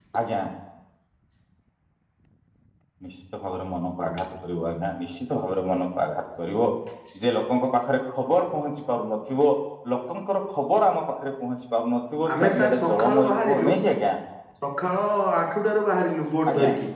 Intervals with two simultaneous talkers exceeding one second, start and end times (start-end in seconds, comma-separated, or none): 12.3-13.7